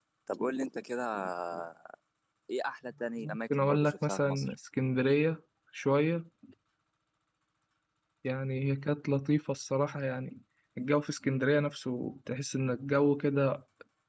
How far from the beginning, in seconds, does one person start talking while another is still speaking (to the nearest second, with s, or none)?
3 s